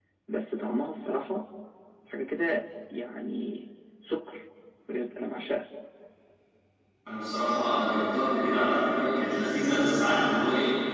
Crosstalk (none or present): none